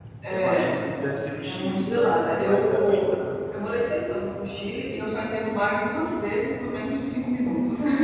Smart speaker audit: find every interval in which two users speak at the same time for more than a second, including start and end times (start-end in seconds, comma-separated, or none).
1.4-3.0